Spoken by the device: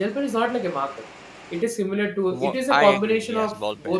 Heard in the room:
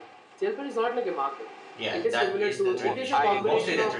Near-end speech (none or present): present